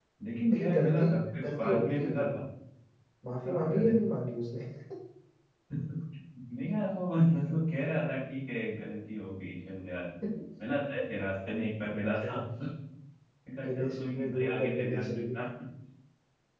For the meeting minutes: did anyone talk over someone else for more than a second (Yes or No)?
Yes